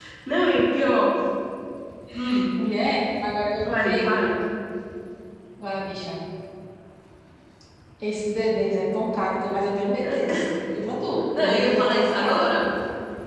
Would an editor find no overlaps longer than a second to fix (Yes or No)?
No